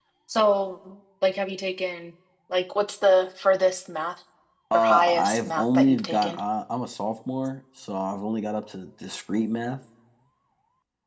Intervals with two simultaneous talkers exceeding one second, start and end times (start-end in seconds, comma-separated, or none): 4.7-6.4